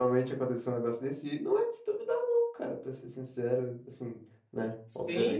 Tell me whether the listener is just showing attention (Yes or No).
No